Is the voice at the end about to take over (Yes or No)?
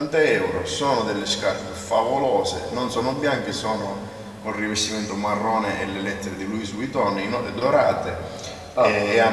No